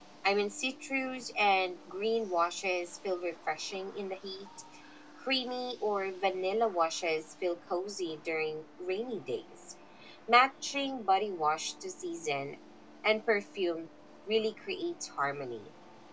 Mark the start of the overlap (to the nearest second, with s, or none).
none